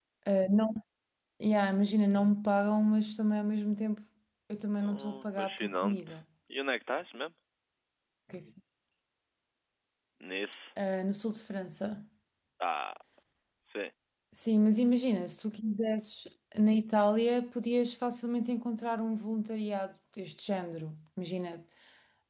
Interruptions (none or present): present